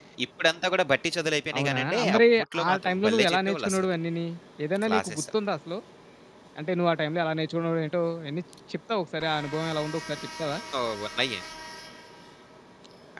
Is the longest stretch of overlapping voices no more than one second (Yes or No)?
No